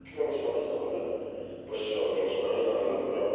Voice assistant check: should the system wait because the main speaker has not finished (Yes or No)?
Yes